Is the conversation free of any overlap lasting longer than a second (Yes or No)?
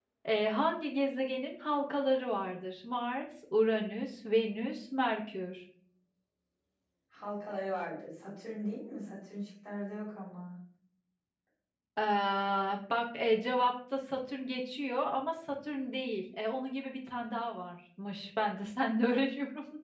Yes